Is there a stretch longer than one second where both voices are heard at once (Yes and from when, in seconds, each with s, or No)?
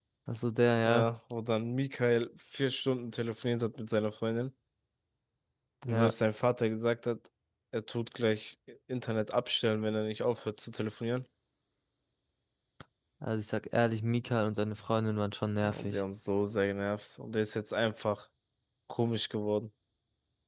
No